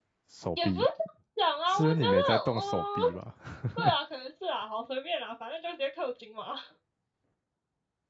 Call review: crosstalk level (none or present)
present